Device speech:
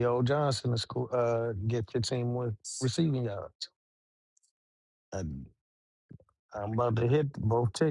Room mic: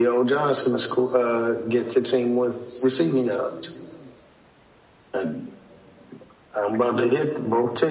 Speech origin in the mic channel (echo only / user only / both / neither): echo only